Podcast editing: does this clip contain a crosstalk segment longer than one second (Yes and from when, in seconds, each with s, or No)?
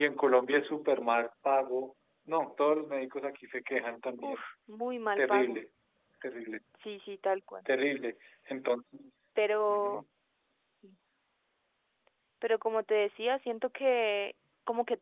No